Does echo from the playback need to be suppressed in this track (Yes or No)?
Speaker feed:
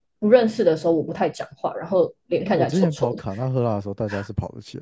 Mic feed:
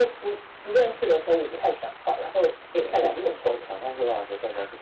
Yes